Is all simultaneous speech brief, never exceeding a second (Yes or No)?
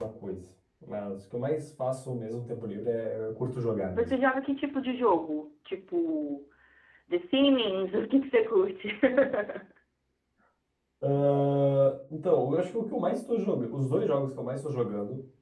Yes